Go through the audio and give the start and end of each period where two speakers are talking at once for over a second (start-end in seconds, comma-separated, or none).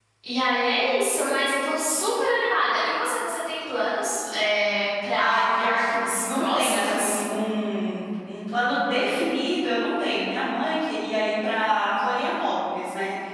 5.2-7.2